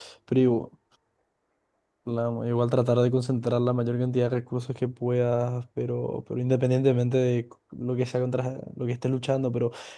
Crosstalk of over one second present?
No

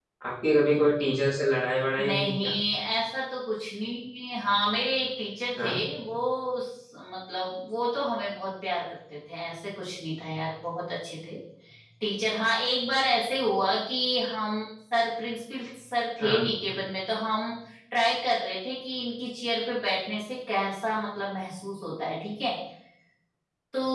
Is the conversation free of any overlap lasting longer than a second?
Yes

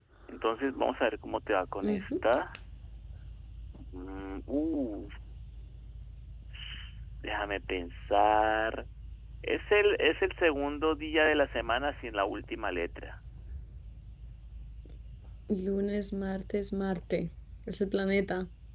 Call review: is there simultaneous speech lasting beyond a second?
No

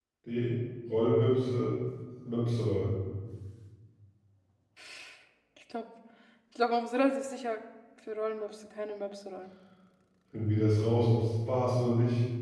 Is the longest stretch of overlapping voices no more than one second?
Yes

